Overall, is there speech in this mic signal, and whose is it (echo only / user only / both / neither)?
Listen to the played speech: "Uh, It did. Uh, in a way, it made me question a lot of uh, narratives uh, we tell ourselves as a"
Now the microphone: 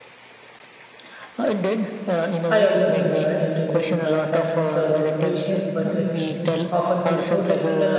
both